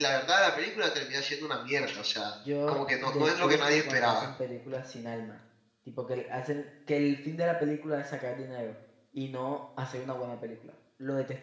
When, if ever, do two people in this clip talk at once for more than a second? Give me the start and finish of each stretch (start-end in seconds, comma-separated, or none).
2.7-4.3